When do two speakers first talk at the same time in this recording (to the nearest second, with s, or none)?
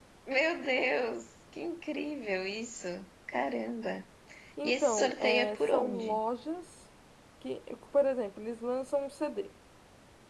5 s